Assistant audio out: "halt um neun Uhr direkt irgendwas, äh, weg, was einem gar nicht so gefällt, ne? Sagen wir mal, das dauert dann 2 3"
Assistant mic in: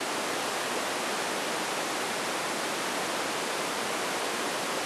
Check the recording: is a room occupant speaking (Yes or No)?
No